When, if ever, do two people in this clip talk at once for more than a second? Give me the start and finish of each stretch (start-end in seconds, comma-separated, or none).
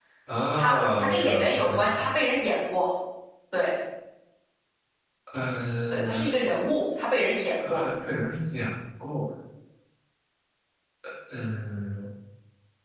0.5-2.0